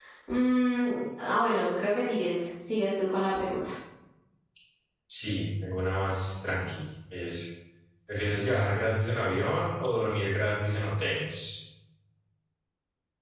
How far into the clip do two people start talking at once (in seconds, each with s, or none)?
none